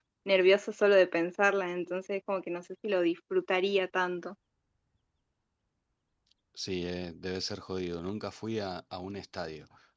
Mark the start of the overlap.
none

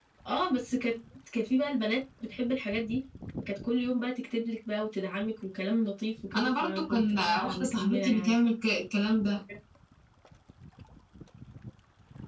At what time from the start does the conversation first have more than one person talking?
6.3 s

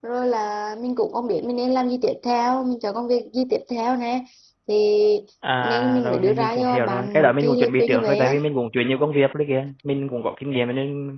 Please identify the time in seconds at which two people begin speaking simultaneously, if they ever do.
5.6 s

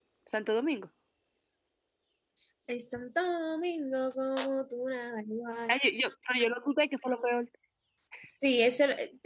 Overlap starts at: none

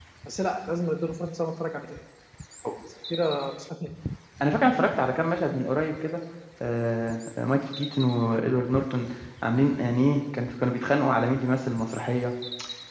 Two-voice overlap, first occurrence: none

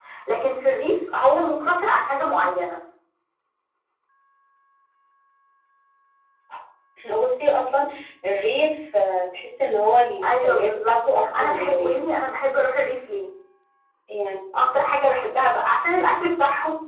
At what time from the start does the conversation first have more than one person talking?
10.2 s

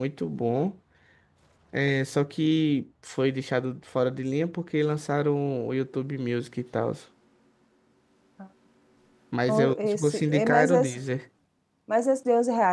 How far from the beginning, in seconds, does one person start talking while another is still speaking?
9.5 s

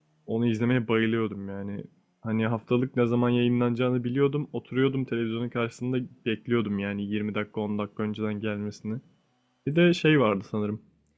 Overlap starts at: none

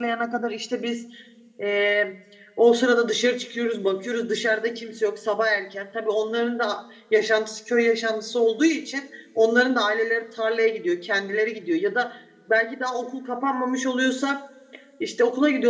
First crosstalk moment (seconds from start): none

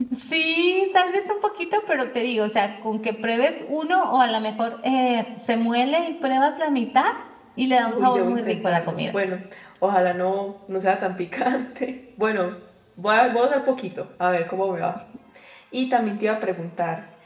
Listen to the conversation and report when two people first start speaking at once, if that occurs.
7.9 s

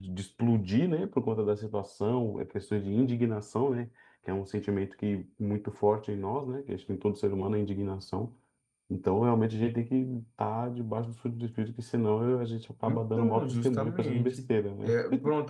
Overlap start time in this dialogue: 12.8 s

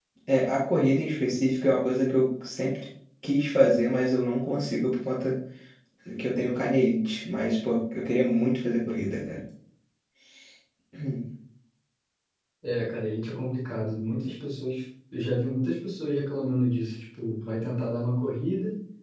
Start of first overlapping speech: none

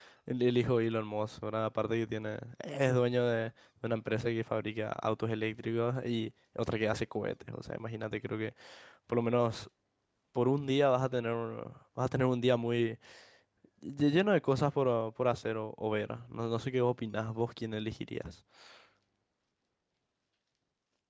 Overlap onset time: none

